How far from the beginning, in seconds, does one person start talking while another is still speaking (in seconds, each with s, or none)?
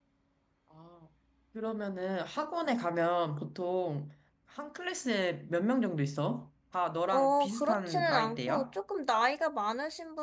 7.1 s